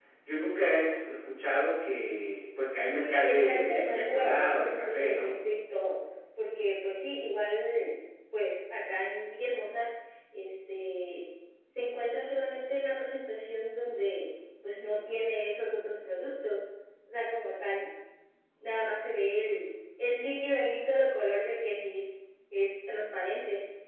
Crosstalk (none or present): present